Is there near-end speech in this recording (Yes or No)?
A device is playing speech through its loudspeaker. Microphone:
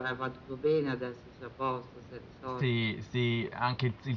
Yes